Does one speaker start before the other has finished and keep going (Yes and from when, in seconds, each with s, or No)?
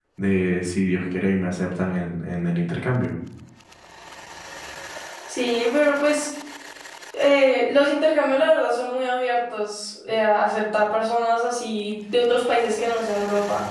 No